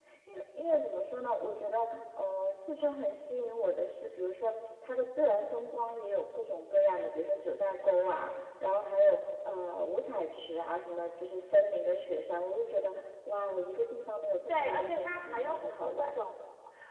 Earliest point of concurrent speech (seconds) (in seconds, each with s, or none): 14.5 s